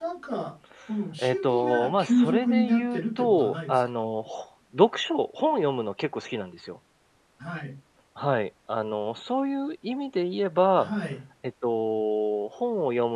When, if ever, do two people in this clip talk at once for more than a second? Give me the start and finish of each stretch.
1.2-3.9

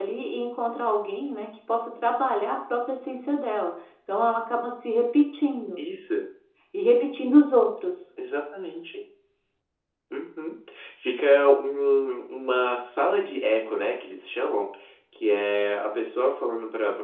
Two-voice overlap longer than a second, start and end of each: none

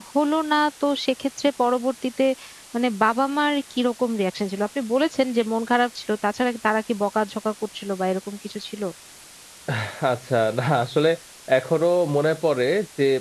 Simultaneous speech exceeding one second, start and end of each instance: none

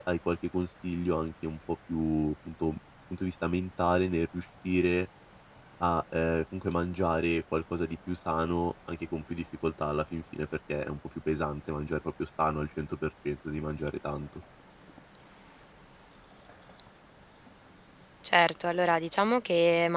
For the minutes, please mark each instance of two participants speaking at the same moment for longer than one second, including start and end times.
none

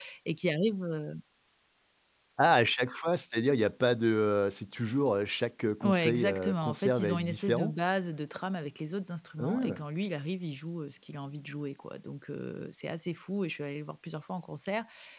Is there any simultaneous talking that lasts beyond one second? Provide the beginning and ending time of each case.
5.8-7.7

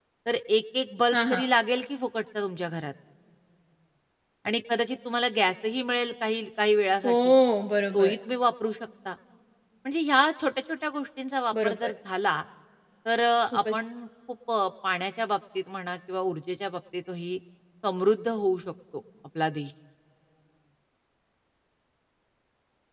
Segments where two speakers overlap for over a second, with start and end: none

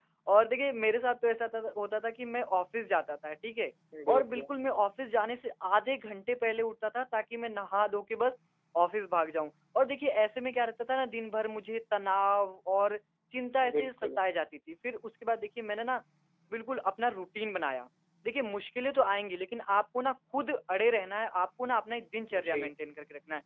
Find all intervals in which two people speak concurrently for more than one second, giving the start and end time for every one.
none

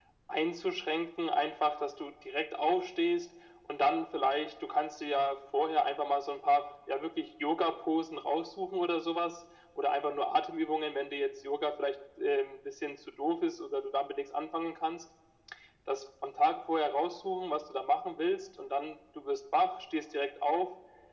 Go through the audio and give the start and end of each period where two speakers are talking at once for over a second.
none

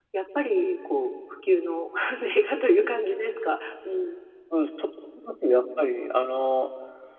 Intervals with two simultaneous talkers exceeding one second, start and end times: none

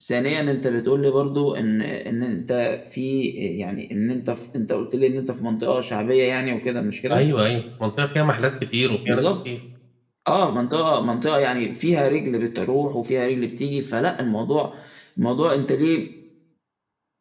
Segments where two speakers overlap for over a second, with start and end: none

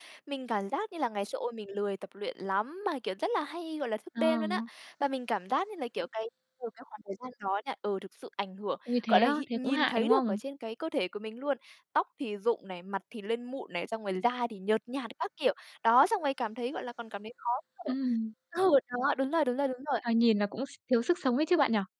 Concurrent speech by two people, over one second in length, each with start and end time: 9.1-10.4

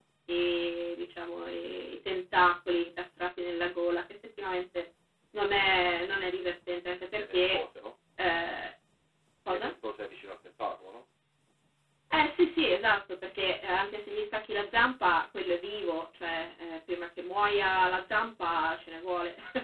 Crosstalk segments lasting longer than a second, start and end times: none

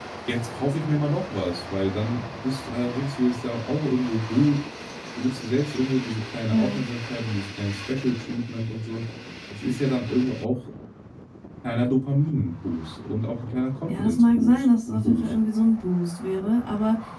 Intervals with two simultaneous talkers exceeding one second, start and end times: 13.9-15.3

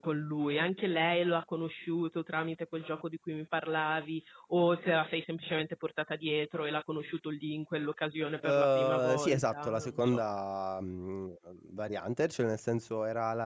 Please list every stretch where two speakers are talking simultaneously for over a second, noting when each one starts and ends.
8.4-10.2

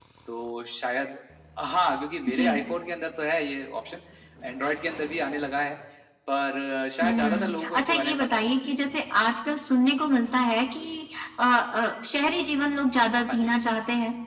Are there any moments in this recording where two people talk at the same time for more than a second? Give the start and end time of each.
7.0-8.5

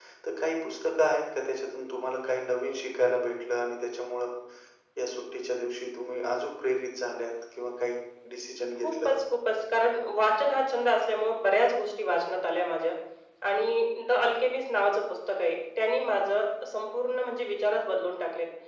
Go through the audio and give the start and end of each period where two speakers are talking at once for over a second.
none

